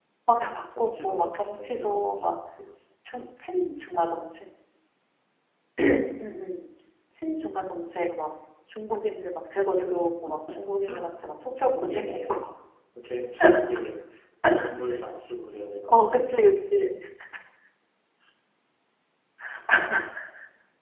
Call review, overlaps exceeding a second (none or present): present